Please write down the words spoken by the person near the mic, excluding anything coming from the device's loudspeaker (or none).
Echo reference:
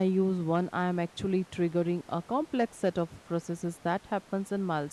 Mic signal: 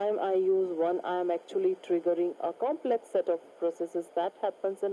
none